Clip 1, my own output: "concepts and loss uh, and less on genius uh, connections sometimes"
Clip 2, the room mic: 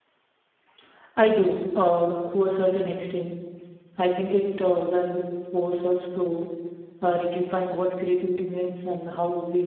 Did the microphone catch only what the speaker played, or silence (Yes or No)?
No